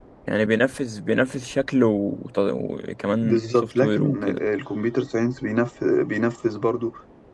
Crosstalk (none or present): present